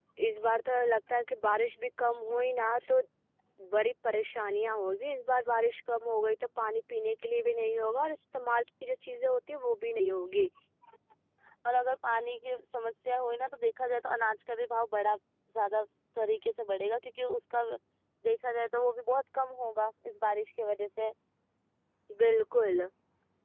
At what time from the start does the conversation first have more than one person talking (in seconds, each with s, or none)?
none